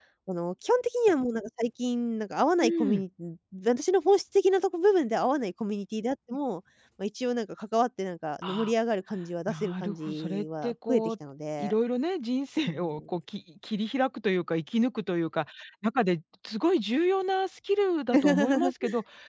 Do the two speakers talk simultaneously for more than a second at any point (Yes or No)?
Yes